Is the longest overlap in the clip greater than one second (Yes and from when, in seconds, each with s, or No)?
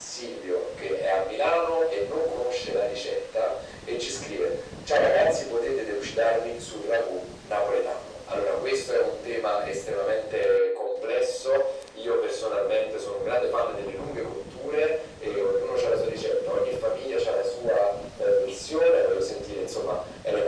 No